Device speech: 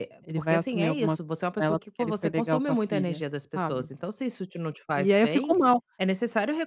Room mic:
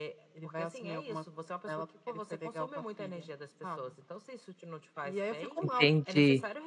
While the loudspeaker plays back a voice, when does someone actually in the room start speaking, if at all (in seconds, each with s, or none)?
5.6 s